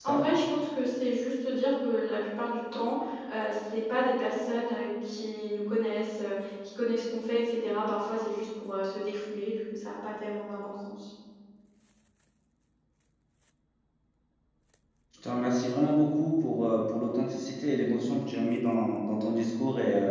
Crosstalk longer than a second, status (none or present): none